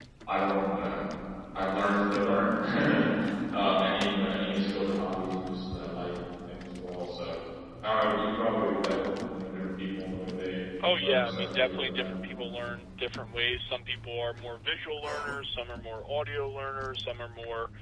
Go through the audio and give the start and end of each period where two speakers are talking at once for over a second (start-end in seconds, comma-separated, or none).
11.0-12.2